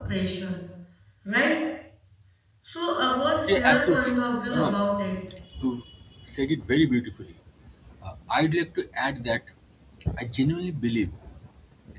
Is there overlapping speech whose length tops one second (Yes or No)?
Yes